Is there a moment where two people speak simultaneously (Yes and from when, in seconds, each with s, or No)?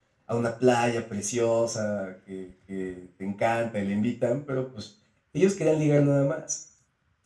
No